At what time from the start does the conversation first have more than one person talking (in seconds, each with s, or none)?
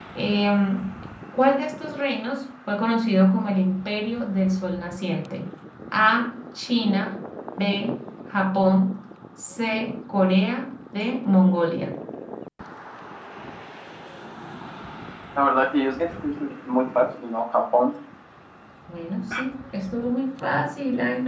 none